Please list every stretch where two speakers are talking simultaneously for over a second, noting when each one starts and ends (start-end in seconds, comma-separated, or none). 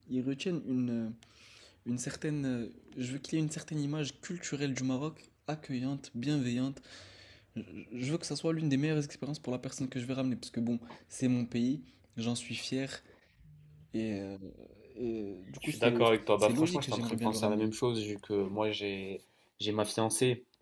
15.6-17.7